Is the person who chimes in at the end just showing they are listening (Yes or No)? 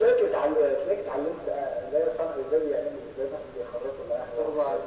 No